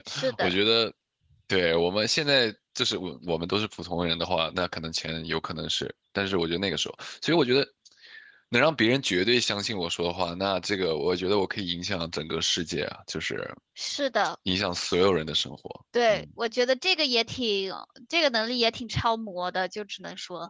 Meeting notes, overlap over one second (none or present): none